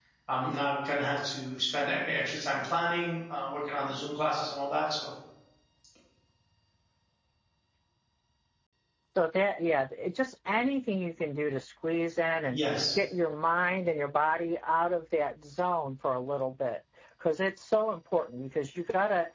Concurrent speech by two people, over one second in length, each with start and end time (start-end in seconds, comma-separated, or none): none